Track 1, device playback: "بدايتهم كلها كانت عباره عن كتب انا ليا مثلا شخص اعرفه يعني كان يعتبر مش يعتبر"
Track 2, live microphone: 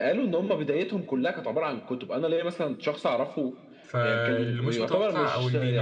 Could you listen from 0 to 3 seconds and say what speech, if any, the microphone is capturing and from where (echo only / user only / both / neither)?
echo only